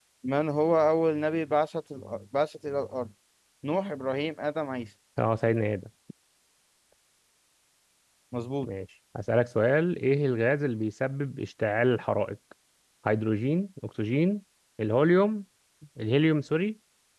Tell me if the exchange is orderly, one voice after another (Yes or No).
Yes